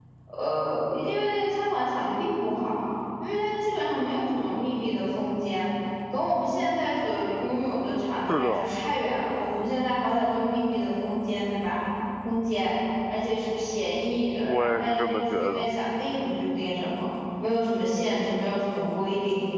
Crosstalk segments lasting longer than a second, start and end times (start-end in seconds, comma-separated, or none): 14.4-15.7